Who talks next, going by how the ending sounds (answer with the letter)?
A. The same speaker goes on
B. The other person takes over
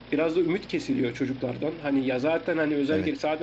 A